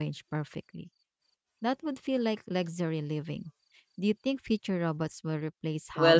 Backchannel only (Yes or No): No